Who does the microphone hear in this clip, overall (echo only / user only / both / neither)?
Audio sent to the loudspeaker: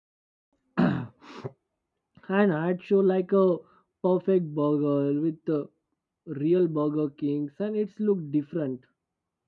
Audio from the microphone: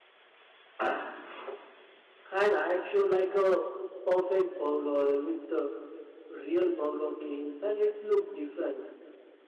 echo only